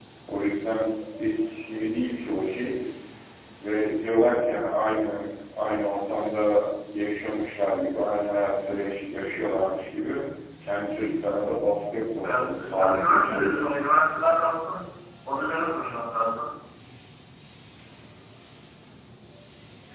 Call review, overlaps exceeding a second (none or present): present